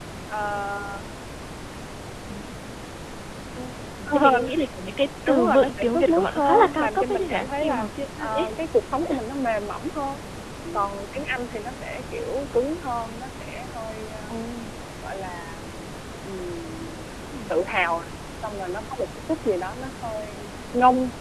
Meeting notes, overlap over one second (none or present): present